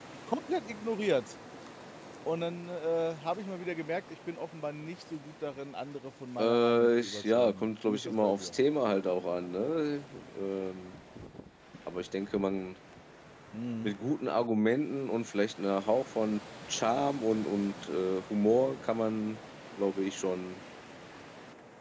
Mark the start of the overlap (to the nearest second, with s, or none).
6 s